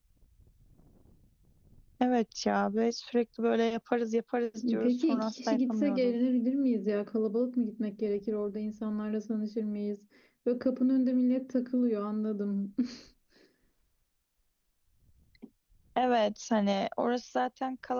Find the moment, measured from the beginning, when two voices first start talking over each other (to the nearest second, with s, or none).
5 s